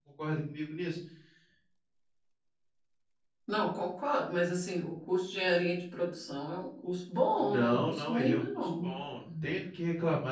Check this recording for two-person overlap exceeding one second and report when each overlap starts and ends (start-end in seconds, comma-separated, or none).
7.4-9.0